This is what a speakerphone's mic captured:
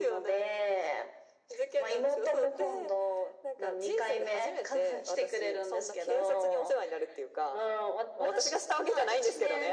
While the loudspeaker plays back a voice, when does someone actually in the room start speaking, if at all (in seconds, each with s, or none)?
none